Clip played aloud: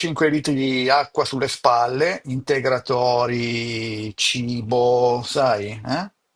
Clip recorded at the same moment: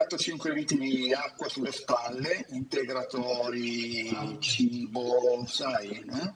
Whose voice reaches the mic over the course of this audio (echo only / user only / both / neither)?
both